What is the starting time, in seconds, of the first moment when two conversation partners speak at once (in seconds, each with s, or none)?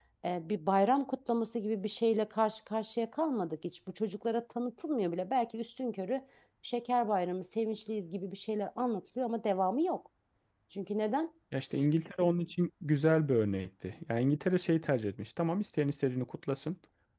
none